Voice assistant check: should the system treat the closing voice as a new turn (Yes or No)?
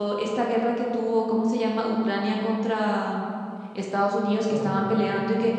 No